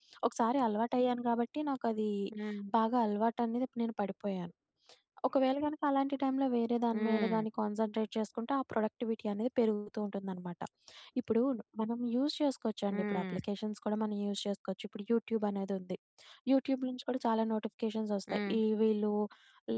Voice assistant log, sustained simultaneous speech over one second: none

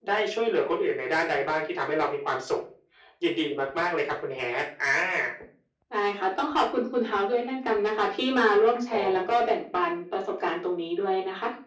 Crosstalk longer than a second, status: none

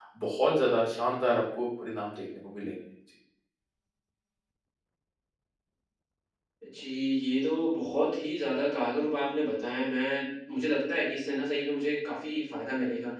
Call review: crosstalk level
none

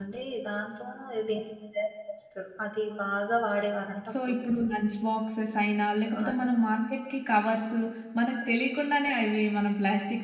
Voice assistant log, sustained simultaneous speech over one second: none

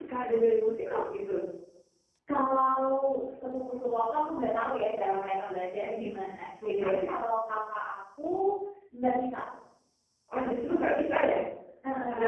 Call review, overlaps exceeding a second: none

